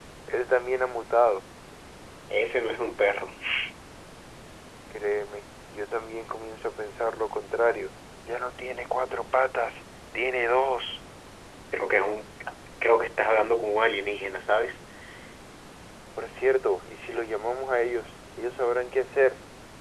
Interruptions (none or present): none